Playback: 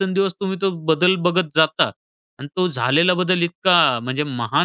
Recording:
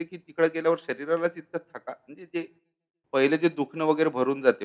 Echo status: none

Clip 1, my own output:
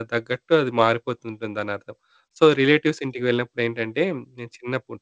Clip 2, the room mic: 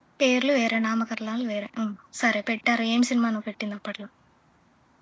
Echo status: none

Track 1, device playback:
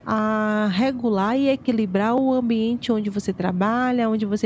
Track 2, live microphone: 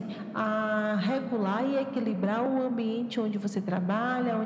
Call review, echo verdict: present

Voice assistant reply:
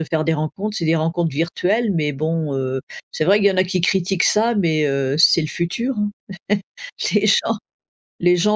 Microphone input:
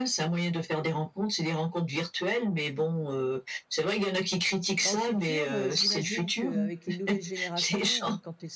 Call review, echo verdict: present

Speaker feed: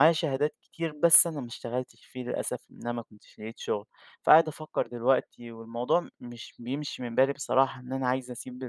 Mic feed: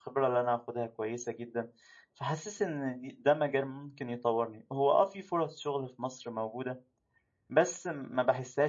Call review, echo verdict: none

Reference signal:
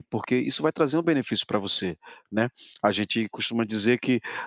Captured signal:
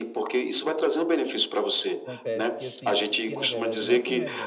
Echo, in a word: present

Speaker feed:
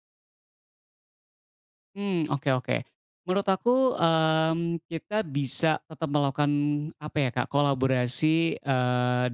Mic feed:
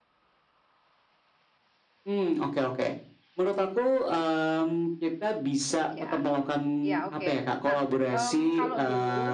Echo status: present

